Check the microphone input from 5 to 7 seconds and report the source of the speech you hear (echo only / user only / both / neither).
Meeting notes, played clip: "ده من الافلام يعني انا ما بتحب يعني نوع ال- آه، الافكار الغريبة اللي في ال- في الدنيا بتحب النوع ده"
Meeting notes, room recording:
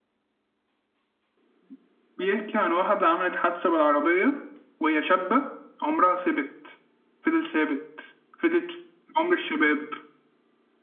user only